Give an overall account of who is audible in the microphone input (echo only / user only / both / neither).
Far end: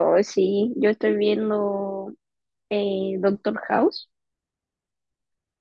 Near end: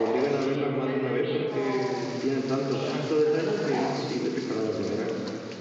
both